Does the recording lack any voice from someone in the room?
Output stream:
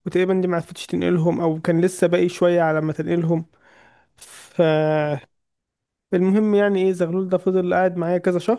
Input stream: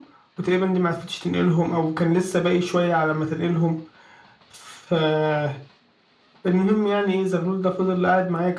Yes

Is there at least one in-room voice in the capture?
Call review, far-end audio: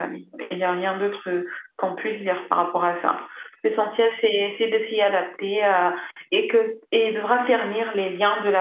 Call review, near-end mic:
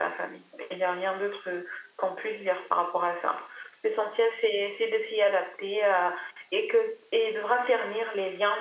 No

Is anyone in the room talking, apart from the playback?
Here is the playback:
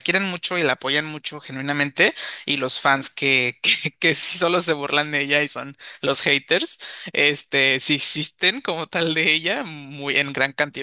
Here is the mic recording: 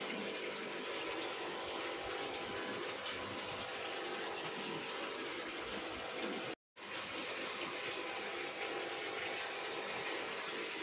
No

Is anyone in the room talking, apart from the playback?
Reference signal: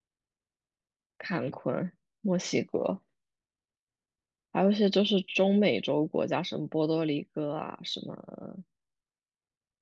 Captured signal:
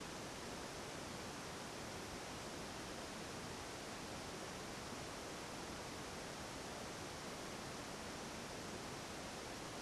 No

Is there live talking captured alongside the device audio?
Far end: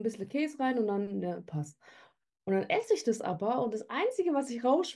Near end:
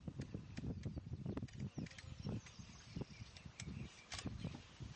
No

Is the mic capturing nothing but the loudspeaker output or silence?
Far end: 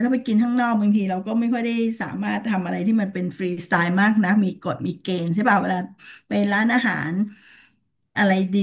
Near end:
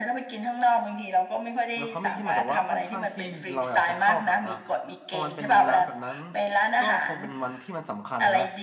No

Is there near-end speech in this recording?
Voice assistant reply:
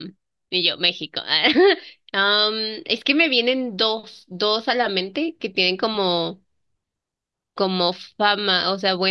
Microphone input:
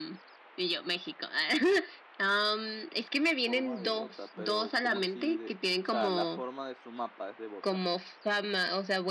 Yes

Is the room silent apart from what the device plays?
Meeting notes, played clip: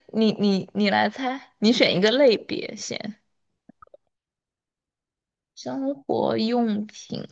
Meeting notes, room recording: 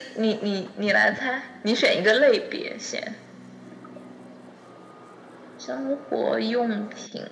Yes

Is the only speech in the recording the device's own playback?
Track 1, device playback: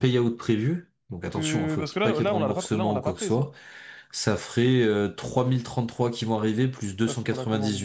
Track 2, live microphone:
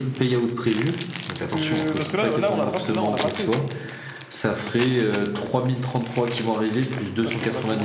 Yes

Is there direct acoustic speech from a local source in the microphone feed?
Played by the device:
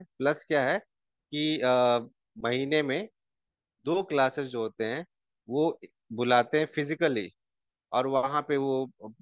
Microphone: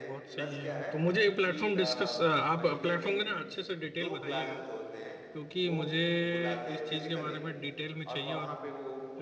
Yes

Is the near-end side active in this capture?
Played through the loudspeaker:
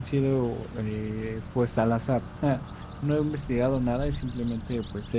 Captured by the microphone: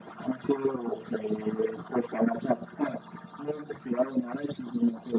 No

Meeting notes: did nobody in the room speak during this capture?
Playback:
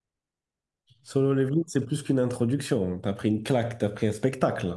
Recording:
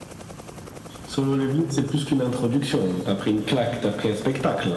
Yes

